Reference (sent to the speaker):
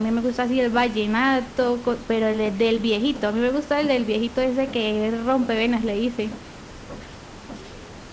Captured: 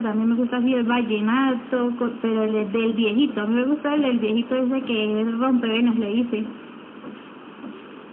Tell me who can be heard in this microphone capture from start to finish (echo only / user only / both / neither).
echo only